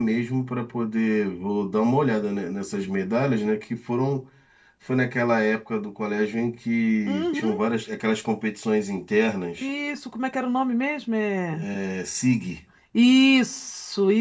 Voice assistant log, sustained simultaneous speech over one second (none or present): none